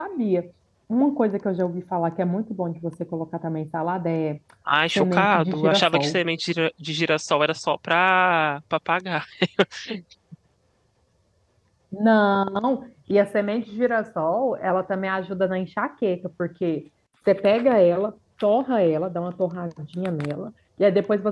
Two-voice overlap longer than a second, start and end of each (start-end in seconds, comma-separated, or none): 5.0-6.2